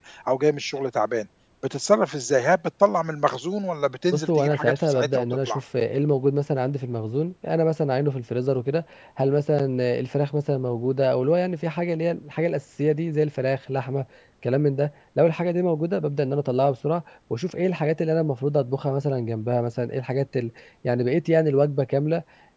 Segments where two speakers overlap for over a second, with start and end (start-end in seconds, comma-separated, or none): 4.1-5.6